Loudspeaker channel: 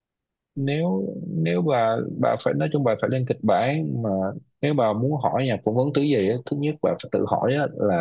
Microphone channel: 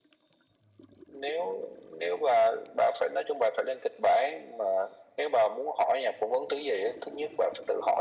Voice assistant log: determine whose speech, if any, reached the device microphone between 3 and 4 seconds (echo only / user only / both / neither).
echo only